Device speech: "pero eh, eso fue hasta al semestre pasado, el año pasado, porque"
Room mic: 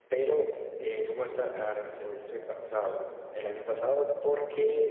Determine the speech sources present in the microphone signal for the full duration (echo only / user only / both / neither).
echo only